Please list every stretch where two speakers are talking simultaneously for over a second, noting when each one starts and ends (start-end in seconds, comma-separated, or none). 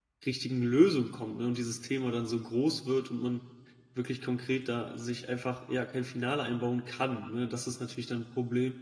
none